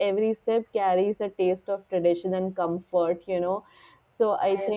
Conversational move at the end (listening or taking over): listening